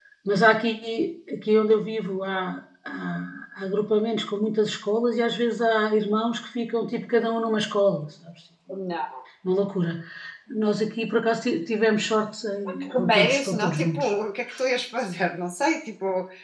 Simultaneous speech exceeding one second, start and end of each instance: 12.8-14.1

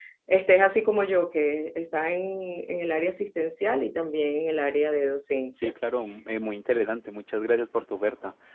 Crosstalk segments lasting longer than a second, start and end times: none

